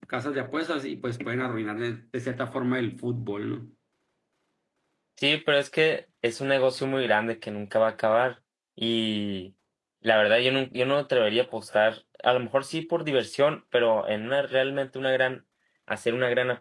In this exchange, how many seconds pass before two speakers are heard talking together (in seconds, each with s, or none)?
none